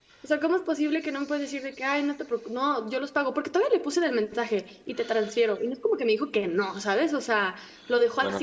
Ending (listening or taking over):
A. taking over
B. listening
B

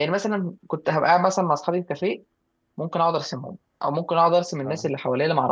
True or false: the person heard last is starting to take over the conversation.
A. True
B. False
B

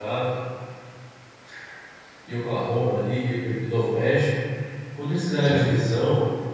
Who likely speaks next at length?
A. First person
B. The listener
A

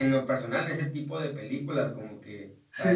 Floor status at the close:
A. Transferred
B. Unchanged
A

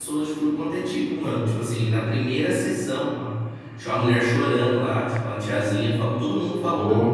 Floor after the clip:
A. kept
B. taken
A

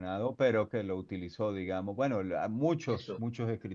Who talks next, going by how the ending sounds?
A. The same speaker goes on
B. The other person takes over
A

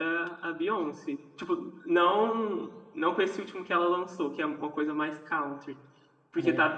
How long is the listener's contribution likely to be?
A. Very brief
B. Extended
A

